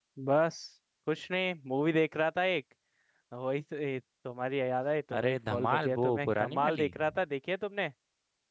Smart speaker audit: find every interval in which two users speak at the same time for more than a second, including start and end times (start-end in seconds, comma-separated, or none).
5.2-6.9